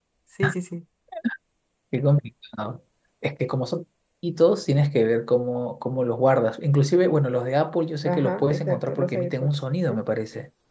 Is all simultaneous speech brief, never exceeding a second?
No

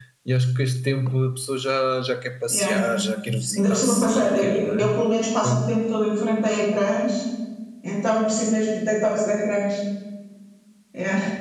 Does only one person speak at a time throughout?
No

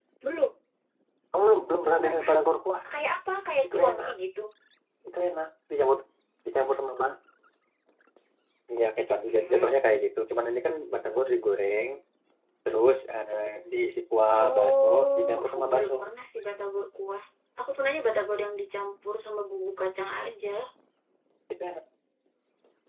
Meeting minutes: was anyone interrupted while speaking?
Yes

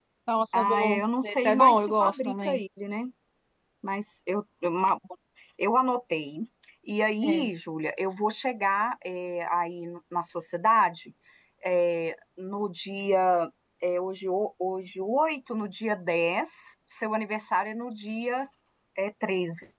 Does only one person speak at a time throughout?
No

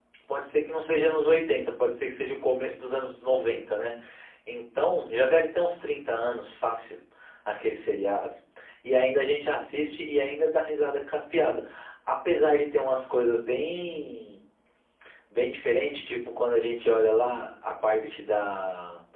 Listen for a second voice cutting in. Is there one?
No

